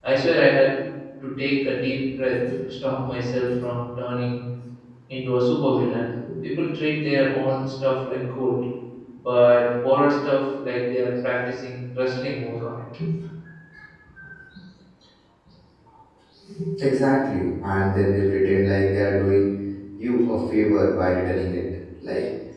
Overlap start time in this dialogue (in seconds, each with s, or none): none